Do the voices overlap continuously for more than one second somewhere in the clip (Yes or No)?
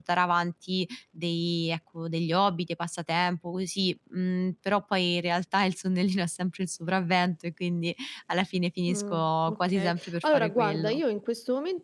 Yes